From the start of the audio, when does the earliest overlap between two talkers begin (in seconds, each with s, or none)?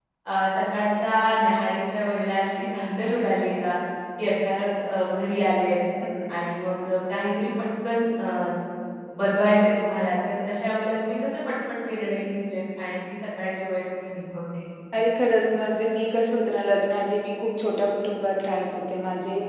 none